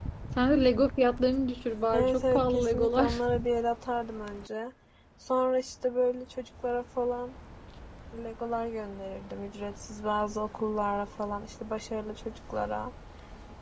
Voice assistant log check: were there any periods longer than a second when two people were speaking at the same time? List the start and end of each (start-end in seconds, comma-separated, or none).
1.9-3.2